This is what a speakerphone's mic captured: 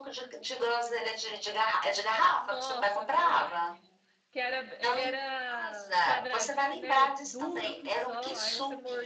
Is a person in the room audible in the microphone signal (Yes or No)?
Yes